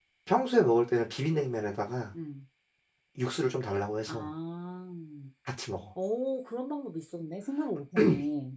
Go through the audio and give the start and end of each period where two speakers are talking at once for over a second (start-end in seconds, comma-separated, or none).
none